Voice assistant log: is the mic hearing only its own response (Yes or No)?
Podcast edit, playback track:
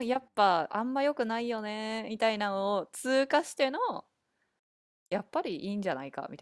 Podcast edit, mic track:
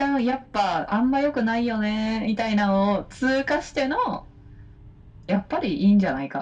Yes